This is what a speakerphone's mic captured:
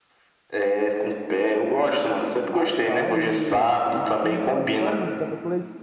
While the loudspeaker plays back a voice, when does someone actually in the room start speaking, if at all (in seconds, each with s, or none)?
2.5 s